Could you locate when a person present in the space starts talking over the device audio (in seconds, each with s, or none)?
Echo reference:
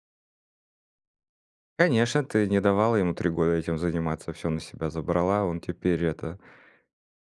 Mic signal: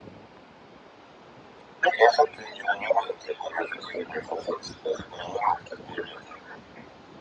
none